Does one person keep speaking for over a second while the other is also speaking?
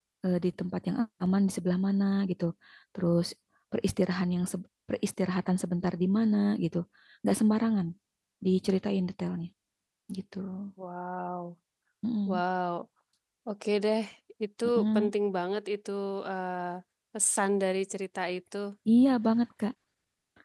No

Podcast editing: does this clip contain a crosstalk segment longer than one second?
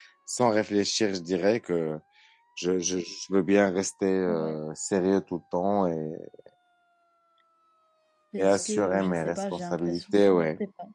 Yes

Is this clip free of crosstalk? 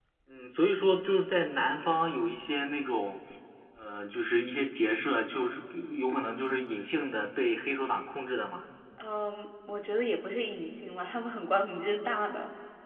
Yes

